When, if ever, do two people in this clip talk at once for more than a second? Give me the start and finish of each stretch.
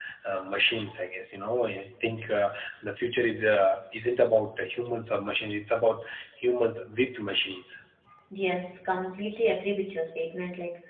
none

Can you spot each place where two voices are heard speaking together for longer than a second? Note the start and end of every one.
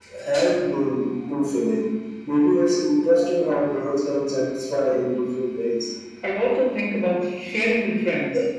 none

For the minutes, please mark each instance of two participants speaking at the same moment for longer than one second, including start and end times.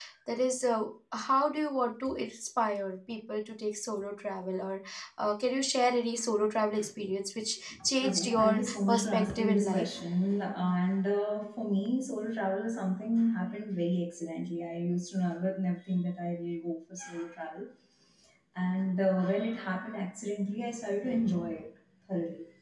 8.0-9.8

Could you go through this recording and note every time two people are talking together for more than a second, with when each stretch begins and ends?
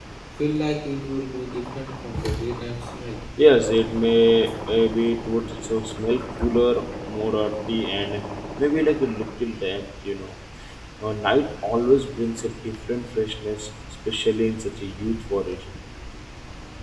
none

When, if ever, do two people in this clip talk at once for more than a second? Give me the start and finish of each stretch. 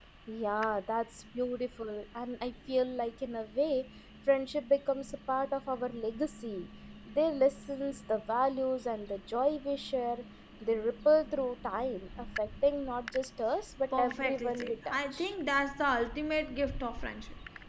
14.0-15.3

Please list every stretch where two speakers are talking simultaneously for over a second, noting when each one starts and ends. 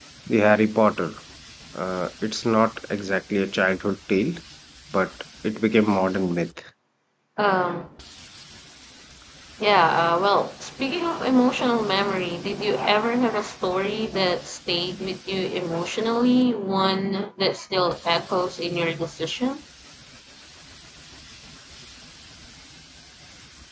none

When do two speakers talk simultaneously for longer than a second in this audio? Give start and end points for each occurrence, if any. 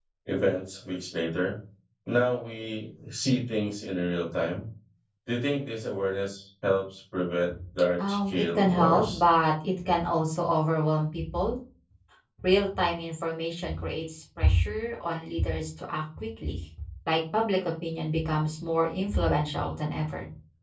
8.0-9.2

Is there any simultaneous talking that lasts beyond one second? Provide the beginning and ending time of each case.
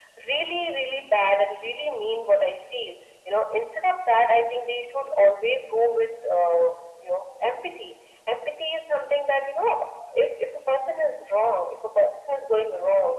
none

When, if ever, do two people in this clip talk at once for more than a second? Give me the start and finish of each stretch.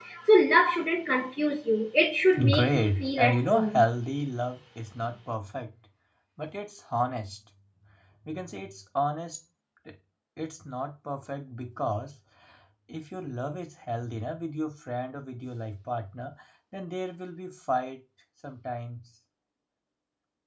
2.5-3.9

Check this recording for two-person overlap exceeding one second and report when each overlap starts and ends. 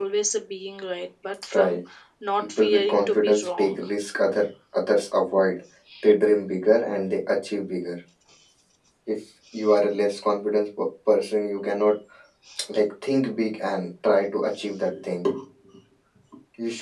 2.4-3.8

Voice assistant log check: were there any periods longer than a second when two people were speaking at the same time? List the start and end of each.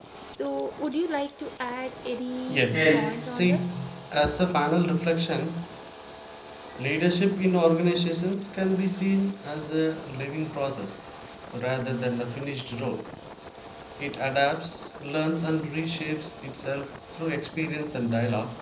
2.5-3.7

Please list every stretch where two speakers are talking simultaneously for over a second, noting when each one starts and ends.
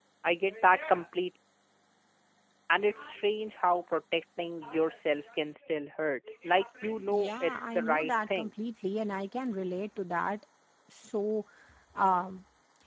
7.1-8.5

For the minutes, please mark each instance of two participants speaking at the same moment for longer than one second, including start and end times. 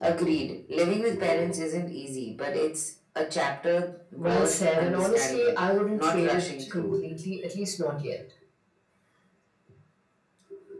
4.2-7.0

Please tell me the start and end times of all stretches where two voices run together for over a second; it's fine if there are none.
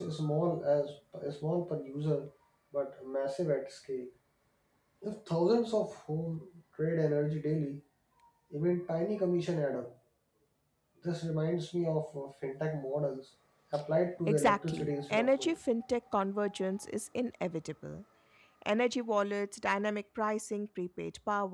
14.3-15.6

